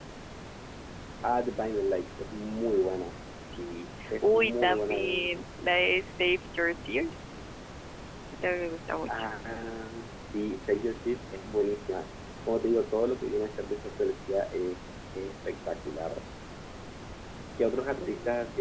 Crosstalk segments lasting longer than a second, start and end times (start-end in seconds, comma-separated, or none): 4.2-5.5